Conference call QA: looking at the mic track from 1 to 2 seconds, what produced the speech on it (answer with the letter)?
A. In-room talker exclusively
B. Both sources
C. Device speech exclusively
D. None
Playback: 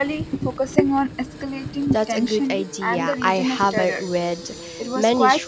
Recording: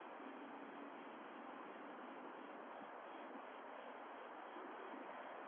D